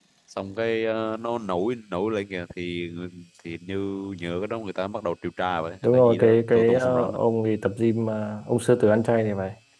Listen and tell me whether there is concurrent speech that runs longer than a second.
Yes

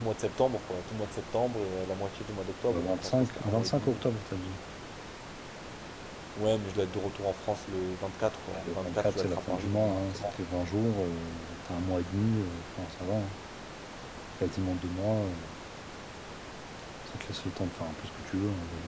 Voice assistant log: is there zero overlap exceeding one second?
No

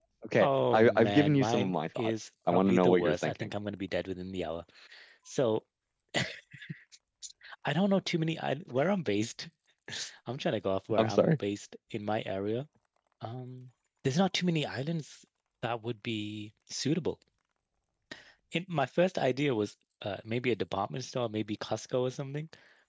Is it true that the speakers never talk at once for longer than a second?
No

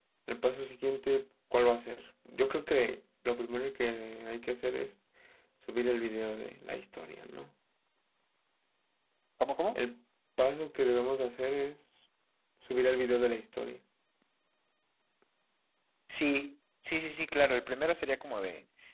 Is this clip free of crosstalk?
Yes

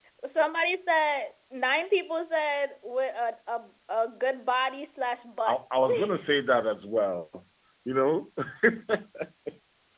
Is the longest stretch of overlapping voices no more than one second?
Yes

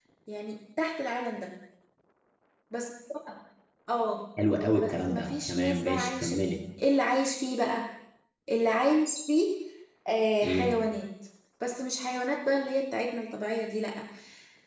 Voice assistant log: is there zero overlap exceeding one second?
No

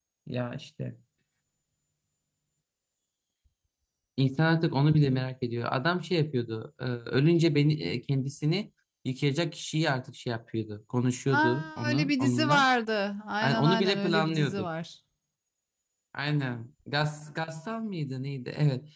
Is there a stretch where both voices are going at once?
Yes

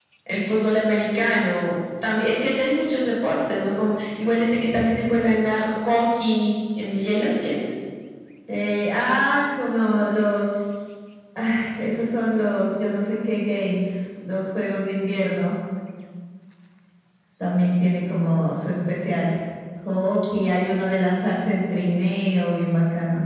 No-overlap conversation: Yes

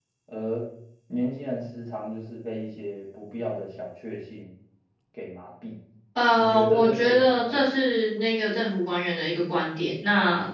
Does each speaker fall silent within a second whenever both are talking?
No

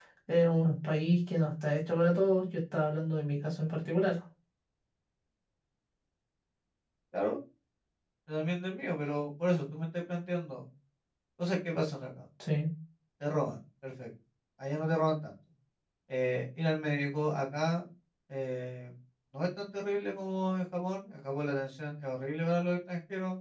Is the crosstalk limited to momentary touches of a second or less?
Yes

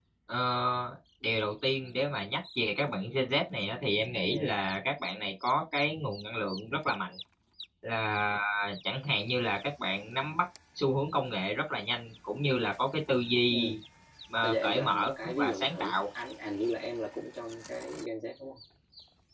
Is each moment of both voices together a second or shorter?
No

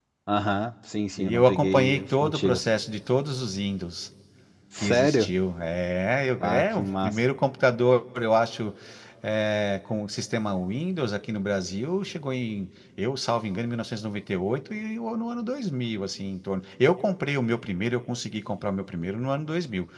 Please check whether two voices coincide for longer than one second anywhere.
Yes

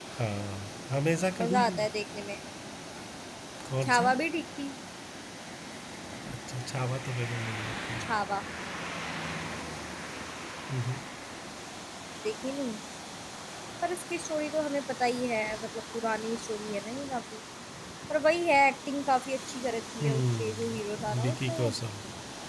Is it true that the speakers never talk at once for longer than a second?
No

